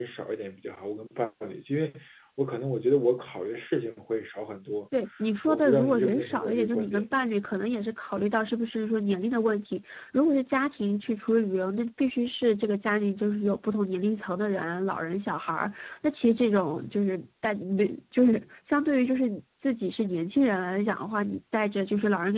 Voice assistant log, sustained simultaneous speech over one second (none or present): present